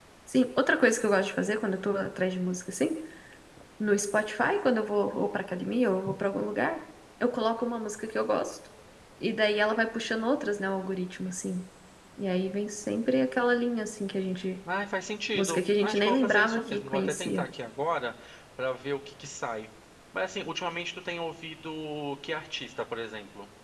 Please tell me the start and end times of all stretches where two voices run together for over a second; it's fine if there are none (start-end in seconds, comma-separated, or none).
15.3-17.4